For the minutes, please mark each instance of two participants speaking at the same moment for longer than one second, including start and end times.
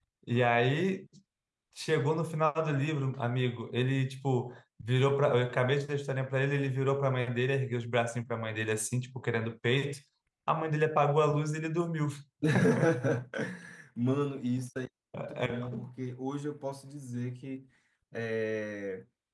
none

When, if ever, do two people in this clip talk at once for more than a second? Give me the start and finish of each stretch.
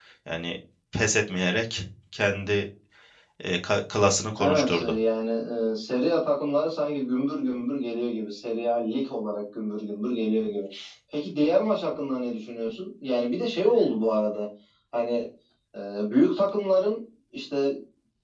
none

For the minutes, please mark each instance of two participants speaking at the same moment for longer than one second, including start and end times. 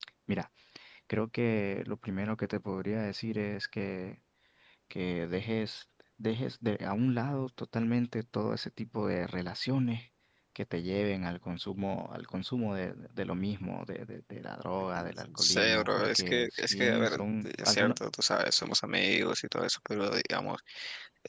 14.9-18.0

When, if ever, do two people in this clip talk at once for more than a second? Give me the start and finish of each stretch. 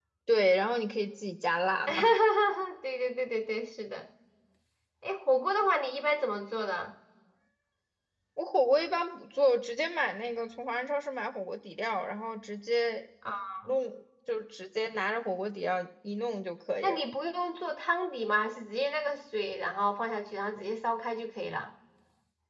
none

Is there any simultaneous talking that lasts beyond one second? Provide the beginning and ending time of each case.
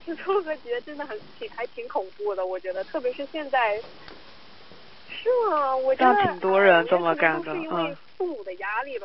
6.0-8.0

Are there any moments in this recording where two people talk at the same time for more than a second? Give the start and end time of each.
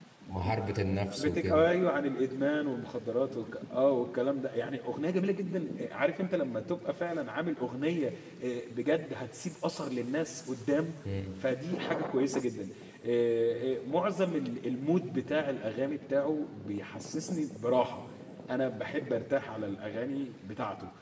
none

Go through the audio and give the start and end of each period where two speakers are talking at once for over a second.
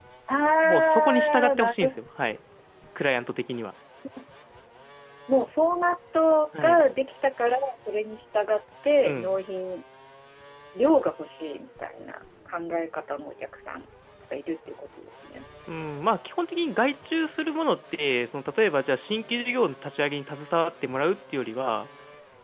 0.6-1.9

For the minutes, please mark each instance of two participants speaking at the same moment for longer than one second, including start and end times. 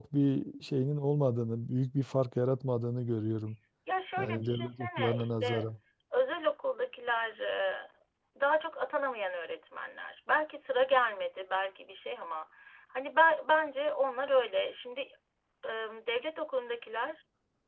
4.2-5.7

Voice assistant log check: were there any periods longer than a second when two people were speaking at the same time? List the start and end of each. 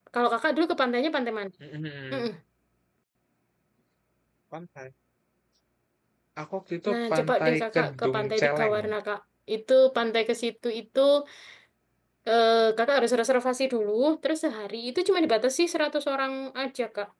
6.9-8.8

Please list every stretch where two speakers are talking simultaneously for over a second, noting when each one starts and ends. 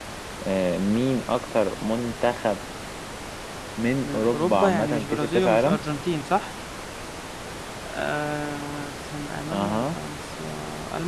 4.0-5.8

